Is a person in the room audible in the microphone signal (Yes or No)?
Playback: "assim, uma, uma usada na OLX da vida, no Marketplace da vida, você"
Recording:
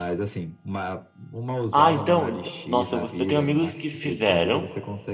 Yes